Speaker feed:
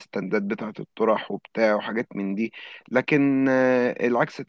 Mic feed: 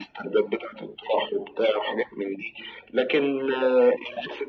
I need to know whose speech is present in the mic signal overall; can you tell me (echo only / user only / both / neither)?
echo only